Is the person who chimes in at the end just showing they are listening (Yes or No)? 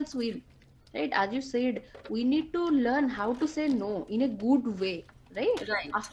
Yes